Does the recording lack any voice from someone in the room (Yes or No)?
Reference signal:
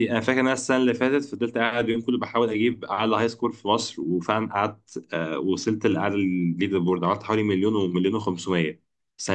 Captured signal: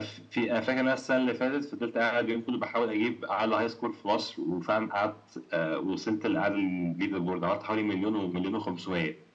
Yes